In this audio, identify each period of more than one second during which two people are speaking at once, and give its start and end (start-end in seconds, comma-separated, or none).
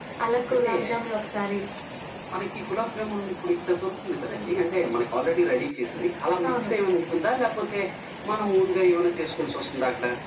none